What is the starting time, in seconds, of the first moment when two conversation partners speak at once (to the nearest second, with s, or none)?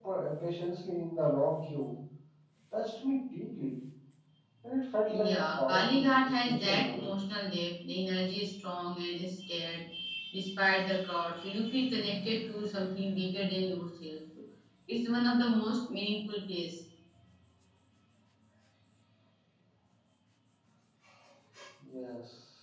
5 s